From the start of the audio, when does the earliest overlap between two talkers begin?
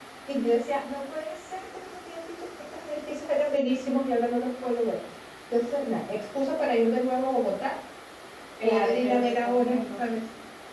8.6 s

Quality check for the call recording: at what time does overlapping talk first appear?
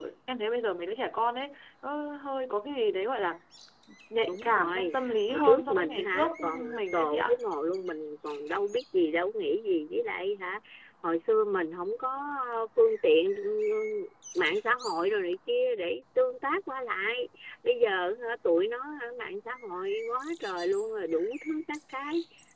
4.2 s

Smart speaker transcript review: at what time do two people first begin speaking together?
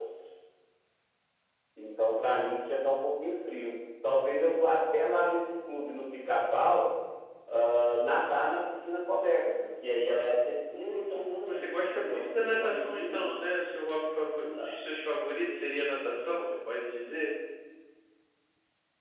10.7 s

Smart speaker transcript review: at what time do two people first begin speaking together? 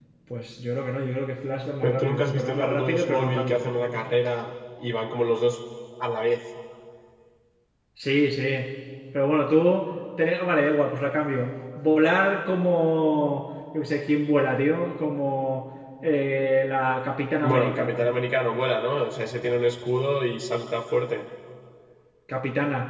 1.8 s

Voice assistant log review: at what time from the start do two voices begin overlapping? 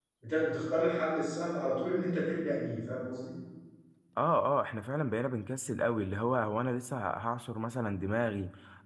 none

